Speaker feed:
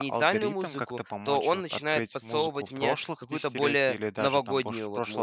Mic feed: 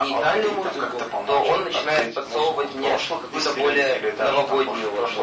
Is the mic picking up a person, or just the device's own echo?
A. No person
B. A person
A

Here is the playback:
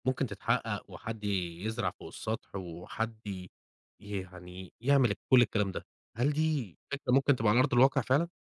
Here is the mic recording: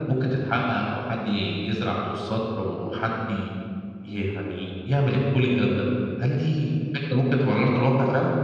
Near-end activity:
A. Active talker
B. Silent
B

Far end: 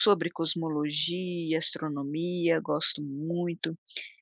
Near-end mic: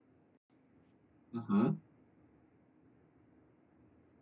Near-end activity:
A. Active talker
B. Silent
A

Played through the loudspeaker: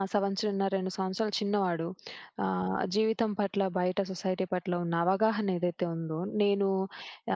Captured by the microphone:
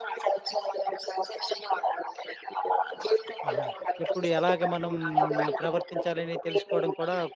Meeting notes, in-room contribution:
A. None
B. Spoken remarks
B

